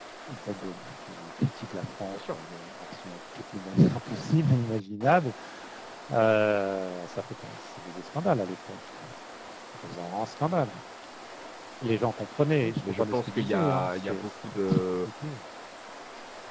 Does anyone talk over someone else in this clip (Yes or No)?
Yes